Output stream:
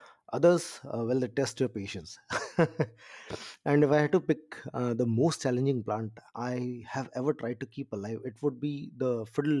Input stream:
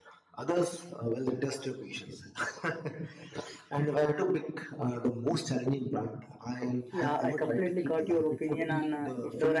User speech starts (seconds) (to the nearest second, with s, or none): 7 s